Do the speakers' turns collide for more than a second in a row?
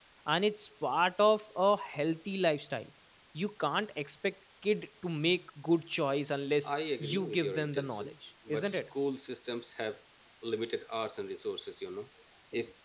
Yes, from 6.6 s

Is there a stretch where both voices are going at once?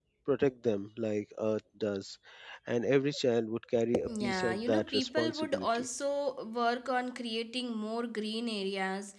Yes, from 4.2 s

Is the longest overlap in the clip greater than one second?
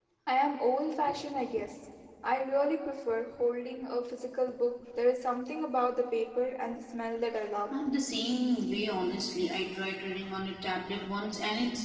No

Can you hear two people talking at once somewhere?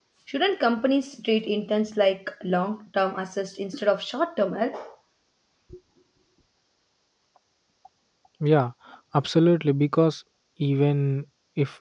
No

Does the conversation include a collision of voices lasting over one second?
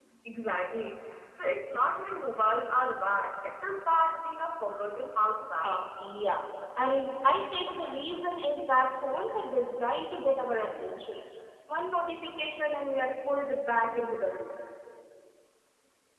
No

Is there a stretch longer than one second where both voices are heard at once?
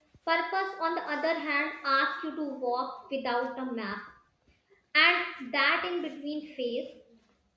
No

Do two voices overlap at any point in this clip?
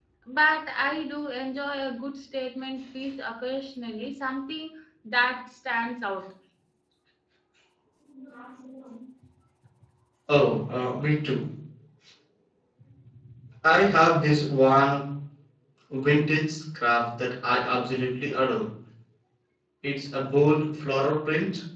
No

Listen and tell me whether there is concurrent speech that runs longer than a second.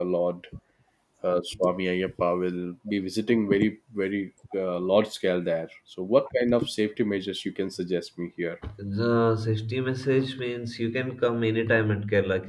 No

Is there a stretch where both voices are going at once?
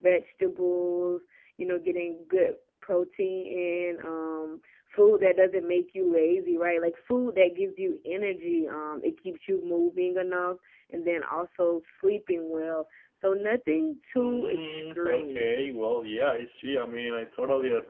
Yes, from 14.2 s

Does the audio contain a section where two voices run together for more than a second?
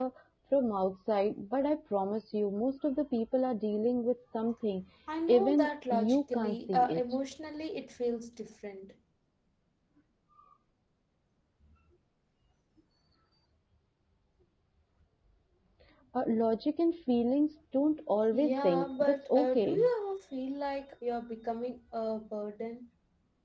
Yes, from 5.3 s

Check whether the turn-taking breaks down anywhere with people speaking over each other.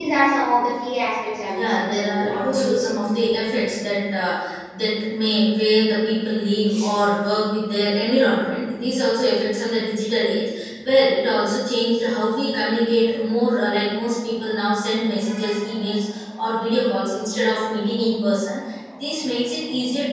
Yes, from 1.5 s

